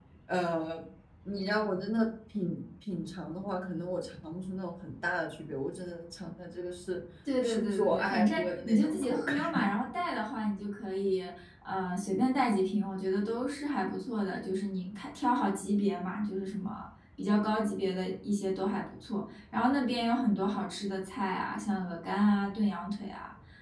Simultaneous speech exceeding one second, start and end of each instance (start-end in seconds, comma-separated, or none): 7.4-9.3